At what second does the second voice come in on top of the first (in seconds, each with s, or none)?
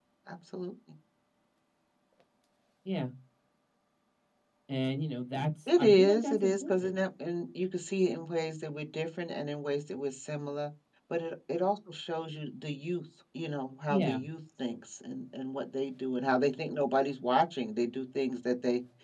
5.7 s